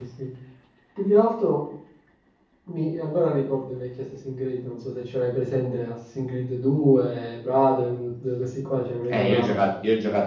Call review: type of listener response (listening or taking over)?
taking over